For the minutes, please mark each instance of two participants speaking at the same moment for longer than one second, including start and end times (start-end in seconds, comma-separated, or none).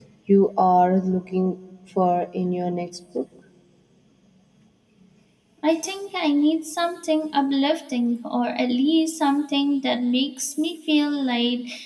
none